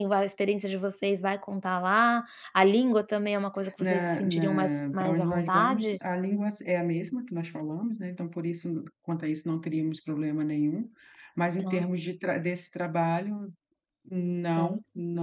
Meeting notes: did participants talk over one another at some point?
Yes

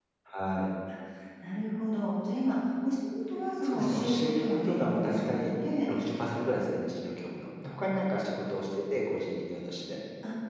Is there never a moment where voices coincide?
No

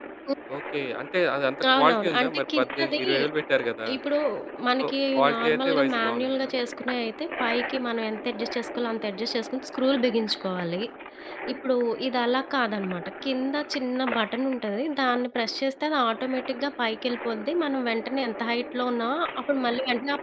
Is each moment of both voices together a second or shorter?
No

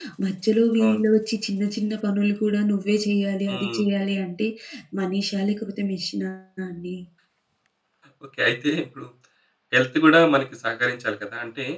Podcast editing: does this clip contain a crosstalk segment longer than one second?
No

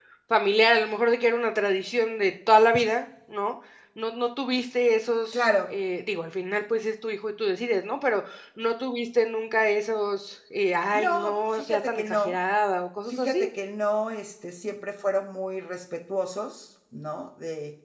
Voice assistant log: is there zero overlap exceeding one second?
No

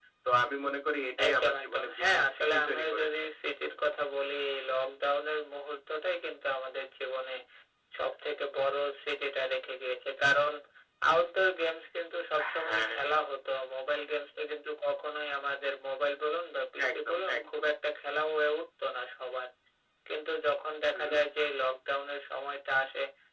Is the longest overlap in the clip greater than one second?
Yes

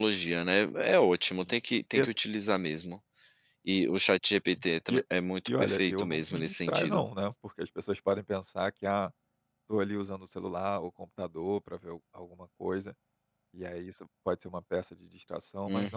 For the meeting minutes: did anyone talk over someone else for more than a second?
Yes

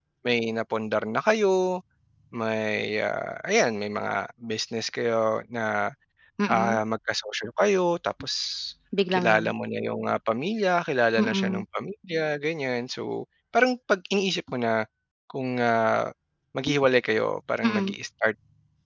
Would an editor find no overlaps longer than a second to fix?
Yes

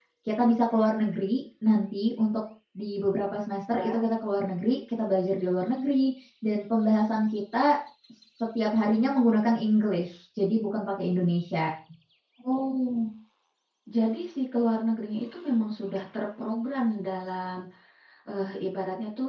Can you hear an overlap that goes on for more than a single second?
No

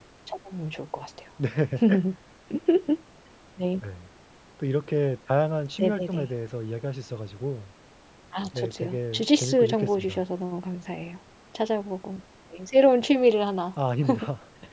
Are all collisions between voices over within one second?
No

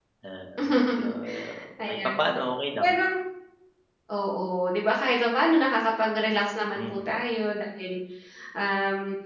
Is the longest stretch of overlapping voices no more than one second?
Yes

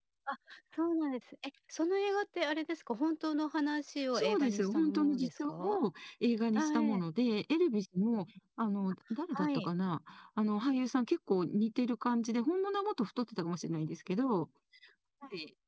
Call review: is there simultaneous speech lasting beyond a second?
Yes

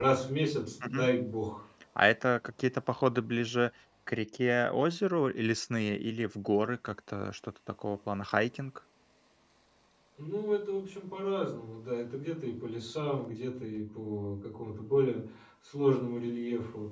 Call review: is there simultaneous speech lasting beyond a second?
No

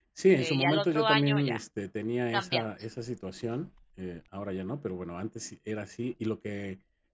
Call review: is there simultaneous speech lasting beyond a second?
Yes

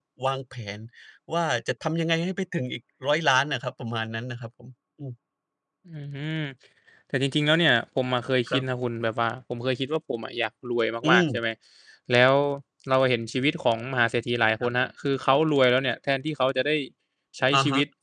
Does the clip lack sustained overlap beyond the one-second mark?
Yes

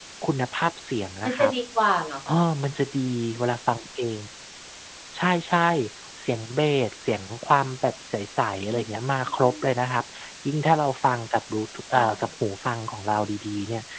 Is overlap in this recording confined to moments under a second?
Yes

